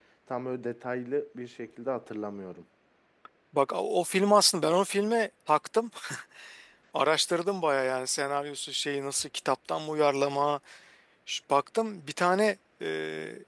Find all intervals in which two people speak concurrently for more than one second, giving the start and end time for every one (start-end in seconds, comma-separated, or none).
none